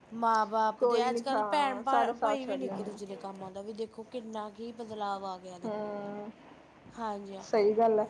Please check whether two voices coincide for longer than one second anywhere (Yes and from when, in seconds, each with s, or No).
Yes, from 0.8 s